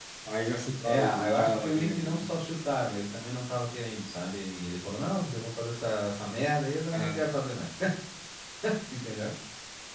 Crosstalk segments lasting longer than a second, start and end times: 0.8-2.2

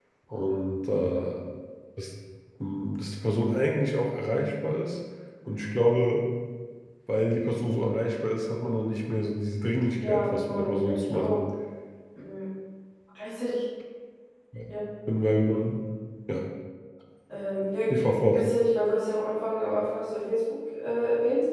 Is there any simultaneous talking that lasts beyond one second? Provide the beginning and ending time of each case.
10.1-11.4

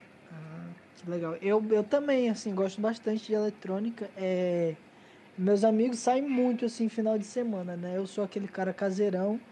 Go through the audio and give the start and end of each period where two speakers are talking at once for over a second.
none

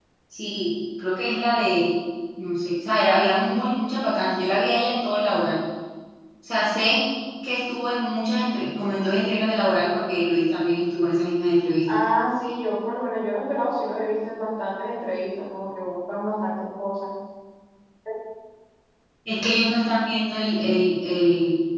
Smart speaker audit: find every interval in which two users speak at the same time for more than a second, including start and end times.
none

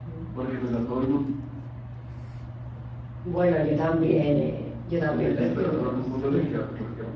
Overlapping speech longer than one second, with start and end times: 5.2-6.5

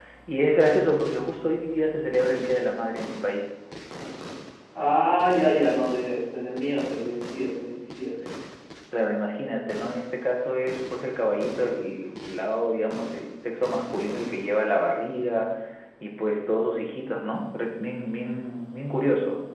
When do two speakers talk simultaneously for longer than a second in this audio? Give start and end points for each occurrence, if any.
none

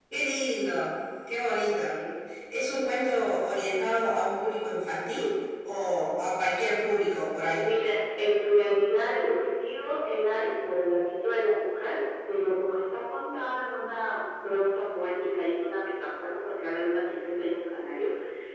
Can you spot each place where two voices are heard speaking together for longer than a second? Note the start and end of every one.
none

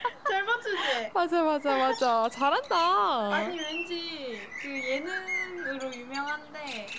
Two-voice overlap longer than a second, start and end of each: none

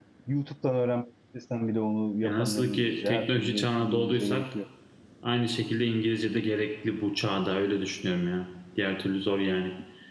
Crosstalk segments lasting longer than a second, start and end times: 2.2-4.5

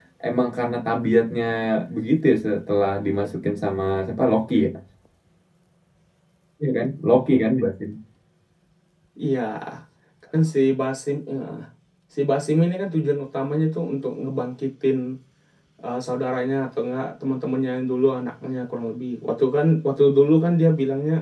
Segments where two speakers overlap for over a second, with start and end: none

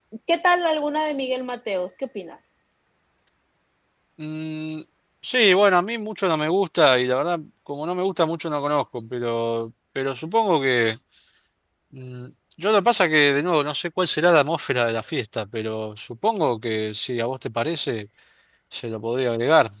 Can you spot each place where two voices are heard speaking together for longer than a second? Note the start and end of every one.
none

